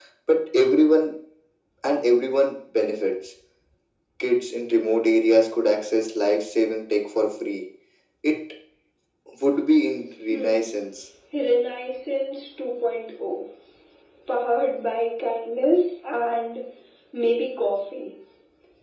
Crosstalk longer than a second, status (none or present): none